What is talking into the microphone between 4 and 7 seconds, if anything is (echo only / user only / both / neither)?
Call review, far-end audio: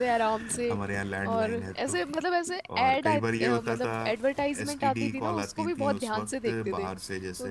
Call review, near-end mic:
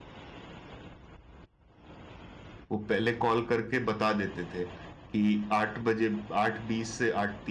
user only